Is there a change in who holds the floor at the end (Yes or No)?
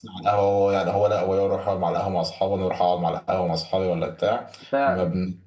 No